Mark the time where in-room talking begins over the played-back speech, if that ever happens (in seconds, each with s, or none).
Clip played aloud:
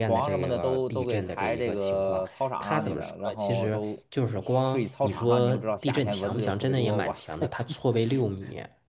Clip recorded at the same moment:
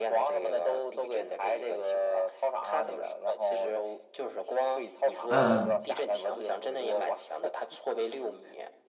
5.3 s